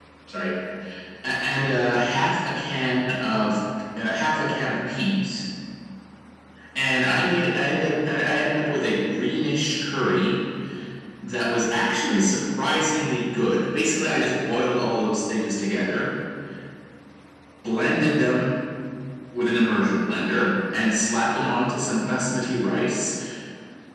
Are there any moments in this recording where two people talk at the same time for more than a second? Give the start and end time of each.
none

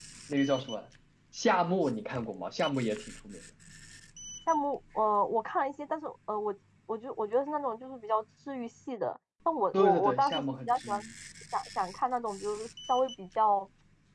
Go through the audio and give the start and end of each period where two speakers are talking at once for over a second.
9.7-11.0

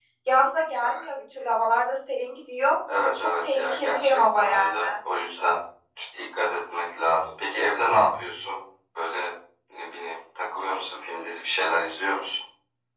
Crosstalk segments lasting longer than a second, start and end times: 2.9-4.8

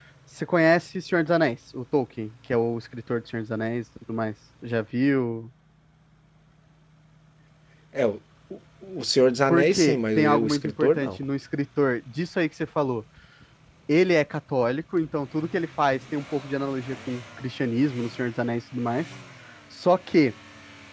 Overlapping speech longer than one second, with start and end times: 9.5-11.1

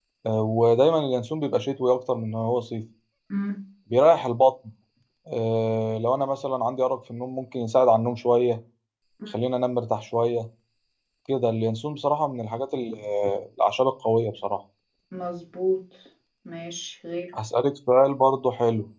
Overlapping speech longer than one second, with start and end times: none

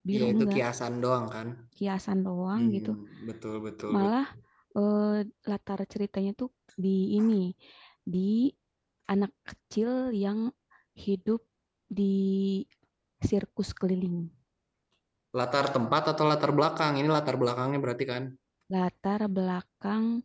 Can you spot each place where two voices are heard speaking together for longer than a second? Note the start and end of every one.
none

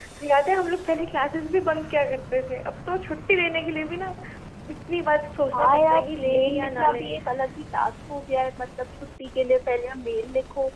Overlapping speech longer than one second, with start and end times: 5.5-7.1

